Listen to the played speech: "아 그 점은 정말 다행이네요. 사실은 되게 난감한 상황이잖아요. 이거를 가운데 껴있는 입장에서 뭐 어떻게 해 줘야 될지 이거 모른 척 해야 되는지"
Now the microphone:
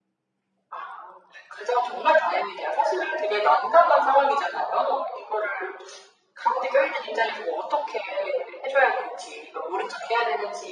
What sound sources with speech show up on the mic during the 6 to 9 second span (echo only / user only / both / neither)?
echo only